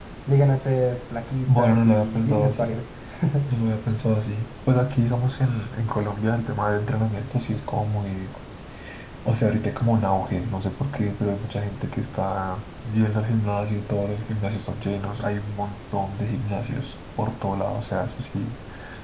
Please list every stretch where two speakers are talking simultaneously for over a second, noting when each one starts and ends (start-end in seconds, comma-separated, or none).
1.6-2.8